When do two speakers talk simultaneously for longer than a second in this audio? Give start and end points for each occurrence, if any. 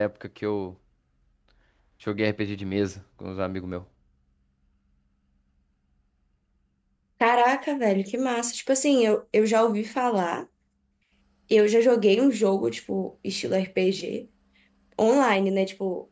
none

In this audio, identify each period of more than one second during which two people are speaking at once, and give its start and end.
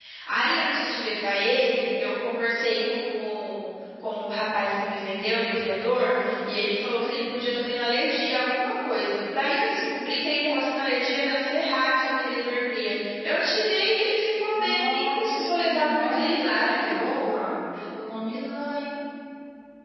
14.6-16.7

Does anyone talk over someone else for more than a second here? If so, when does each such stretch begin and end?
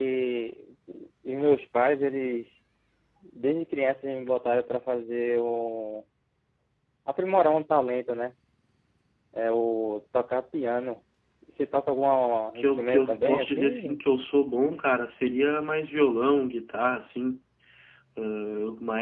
12.6-14.0

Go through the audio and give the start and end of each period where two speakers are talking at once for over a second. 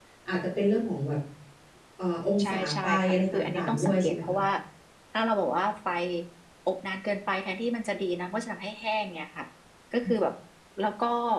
2.4-4.4

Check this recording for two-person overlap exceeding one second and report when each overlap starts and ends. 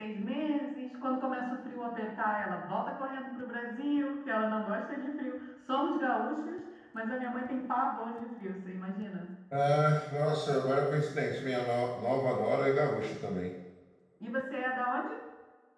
none

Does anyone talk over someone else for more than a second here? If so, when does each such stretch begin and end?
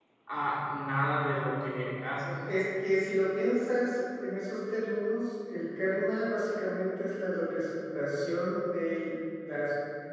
none

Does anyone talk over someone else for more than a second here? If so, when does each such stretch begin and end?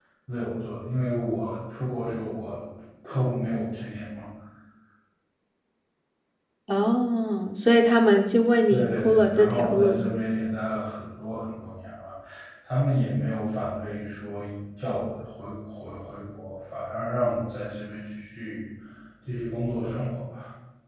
8.7-10.0

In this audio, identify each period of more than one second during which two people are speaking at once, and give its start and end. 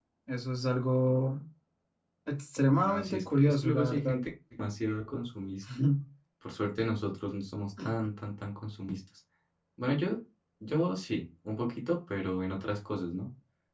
2.7-4.2

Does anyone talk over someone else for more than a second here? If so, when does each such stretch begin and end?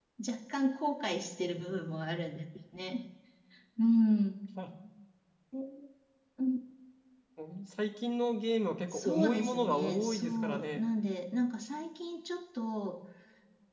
8.9-10.8

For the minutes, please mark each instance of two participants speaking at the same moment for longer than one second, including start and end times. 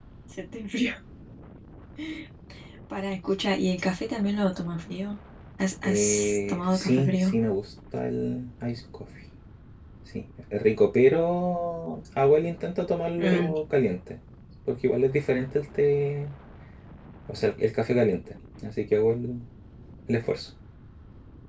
5.8-7.3

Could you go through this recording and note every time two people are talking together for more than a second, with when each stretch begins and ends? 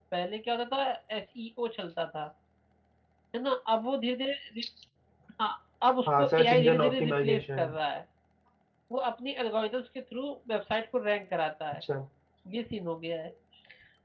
6.1-7.7

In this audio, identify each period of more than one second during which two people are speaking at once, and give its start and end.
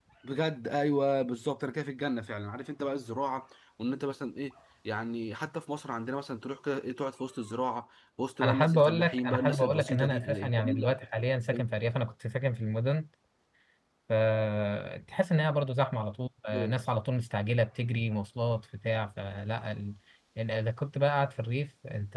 8.4-10.9

